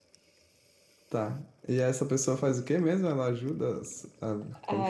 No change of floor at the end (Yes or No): No